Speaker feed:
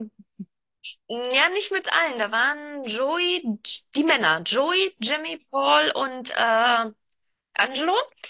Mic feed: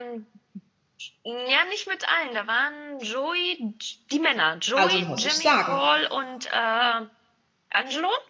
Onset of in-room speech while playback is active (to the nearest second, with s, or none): 5 s